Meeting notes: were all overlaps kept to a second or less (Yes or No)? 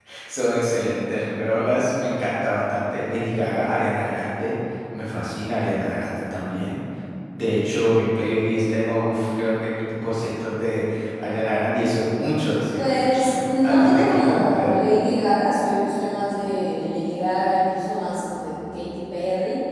No